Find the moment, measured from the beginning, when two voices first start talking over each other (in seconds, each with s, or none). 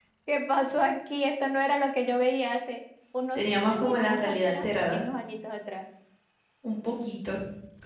3.4 s